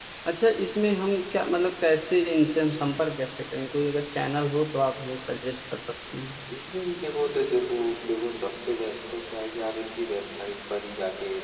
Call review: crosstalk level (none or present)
none